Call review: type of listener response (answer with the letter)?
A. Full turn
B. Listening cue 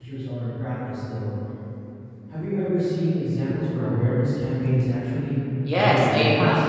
A